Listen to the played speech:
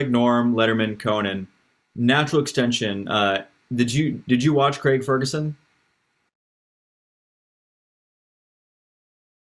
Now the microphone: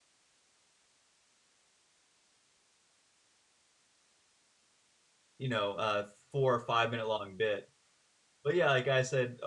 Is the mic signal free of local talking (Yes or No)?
No